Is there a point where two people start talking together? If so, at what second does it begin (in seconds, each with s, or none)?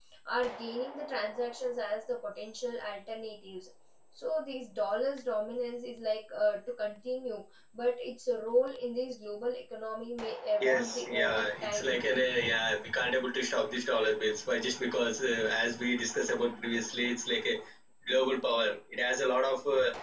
10.6 s